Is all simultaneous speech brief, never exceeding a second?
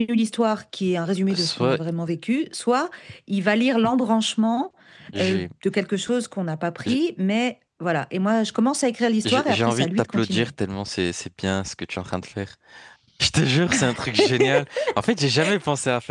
No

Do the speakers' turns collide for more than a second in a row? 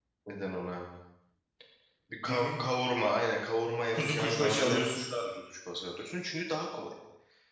Yes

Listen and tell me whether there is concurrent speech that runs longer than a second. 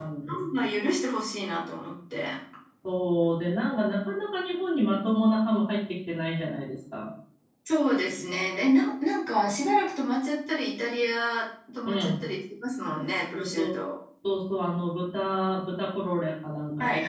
No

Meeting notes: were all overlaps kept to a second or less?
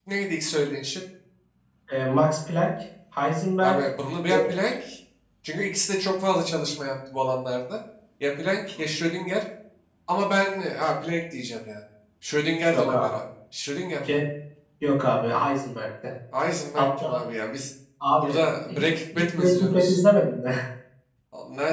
No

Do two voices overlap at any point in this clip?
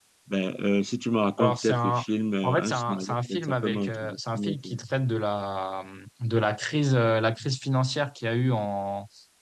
Yes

